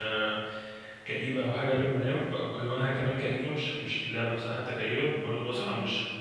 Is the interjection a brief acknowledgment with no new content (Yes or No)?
Yes